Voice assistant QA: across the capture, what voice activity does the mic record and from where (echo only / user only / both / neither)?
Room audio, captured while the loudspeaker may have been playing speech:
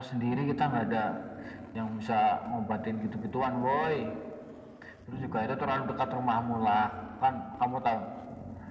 echo only